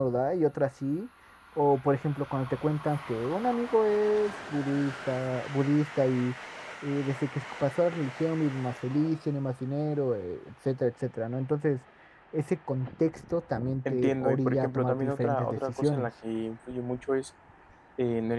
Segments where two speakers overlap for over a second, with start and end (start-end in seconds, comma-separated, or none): 13.9-16.1